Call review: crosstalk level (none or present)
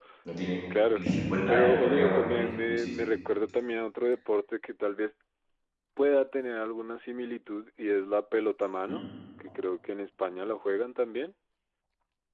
present